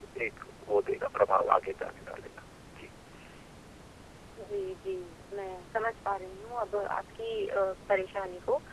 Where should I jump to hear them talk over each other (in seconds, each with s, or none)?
none